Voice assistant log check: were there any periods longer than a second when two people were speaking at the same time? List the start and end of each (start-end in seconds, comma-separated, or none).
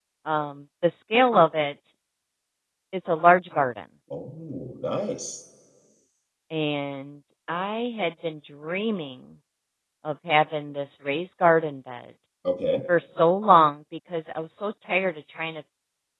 none